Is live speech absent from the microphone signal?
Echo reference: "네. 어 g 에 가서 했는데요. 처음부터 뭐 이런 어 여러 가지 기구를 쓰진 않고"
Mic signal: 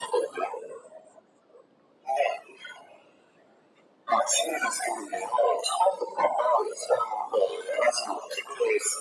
Yes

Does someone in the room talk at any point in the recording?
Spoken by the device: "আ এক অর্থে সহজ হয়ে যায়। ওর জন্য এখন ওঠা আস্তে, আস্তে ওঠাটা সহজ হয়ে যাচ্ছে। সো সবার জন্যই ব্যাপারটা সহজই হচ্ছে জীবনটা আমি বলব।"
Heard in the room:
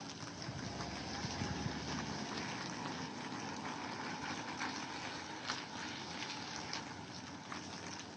No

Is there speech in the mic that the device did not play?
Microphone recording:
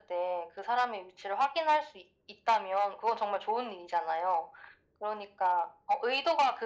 No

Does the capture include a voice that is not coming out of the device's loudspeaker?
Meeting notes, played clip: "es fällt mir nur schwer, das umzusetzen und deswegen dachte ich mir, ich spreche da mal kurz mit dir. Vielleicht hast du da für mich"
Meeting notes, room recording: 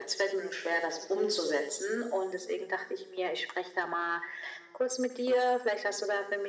No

